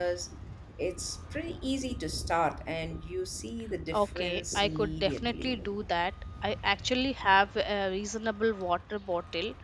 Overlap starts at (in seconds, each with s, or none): 3.9 s